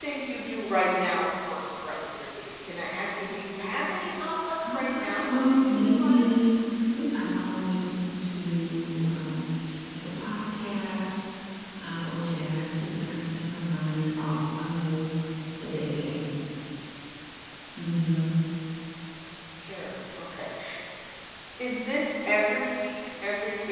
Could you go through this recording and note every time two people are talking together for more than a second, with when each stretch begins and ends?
4.6-6.4

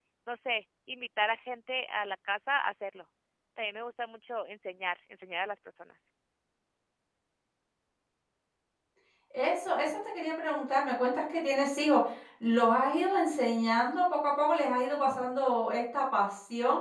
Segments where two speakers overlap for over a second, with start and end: none

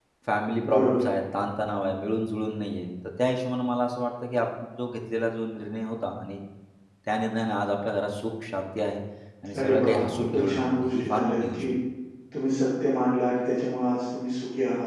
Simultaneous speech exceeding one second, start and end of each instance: 9.6-11.6

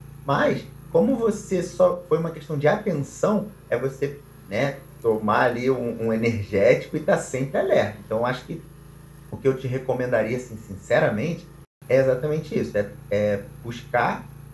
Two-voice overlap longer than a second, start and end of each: none

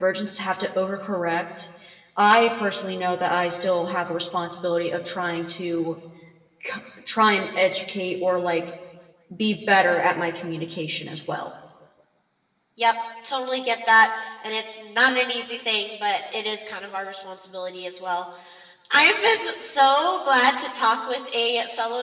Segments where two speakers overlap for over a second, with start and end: none

